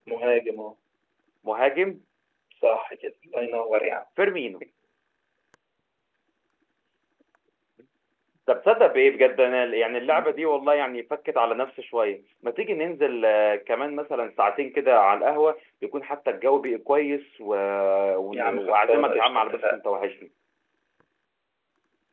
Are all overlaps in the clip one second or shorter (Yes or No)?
No